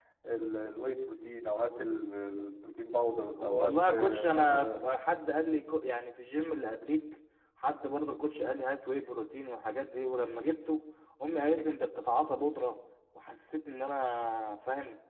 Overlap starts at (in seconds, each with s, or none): 3.4 s